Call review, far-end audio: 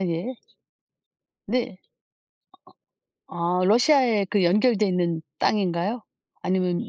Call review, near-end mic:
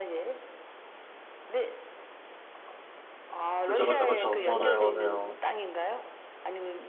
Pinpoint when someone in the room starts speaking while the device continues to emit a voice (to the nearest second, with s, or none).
4 s